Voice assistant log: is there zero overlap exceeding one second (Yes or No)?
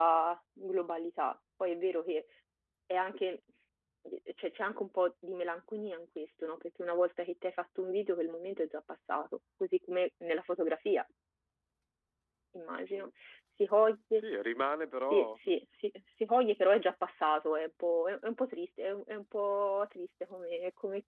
Yes